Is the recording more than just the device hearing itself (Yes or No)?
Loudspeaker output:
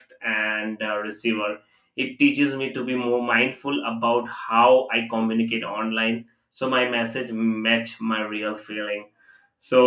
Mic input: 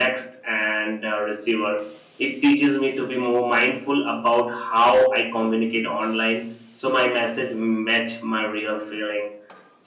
No